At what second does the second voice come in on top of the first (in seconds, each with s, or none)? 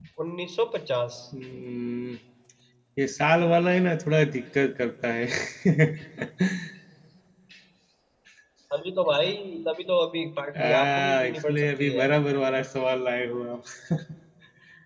10.6 s